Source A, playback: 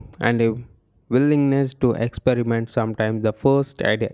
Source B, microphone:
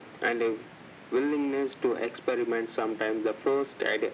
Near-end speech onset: none

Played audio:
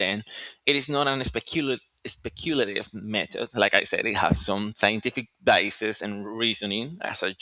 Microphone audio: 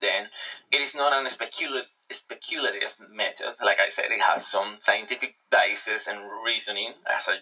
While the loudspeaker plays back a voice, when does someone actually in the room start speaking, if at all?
none

